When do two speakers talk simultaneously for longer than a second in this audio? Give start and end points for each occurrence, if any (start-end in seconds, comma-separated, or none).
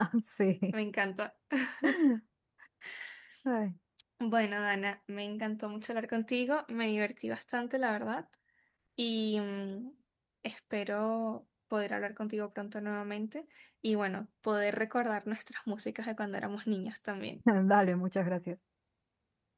none